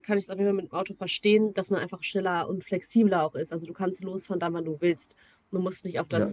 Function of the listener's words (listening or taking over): listening